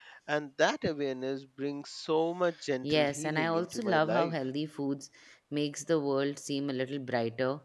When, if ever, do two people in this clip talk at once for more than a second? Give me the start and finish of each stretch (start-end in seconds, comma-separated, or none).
2.8-4.3